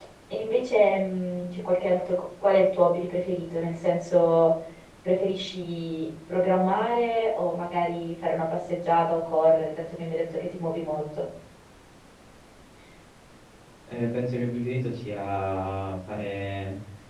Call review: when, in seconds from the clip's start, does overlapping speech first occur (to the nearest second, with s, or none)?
none